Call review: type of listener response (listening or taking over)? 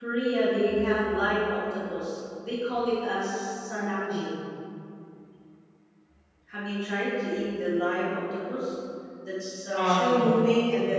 listening